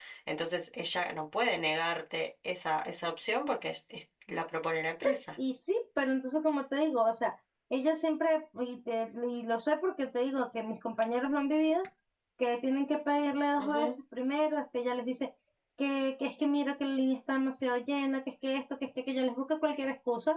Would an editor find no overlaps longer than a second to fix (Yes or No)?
Yes